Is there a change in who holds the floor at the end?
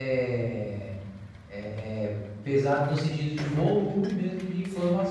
Yes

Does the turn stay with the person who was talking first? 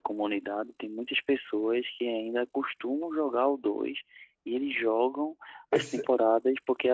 Yes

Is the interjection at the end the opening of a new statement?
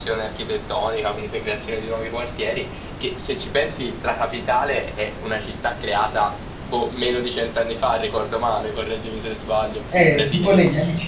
Yes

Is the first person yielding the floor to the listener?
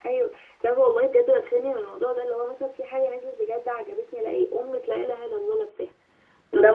Yes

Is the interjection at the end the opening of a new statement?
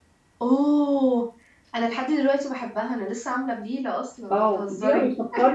Yes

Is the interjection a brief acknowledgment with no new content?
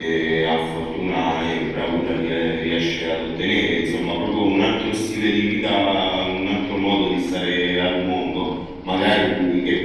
Yes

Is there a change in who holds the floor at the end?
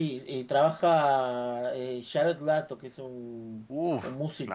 Yes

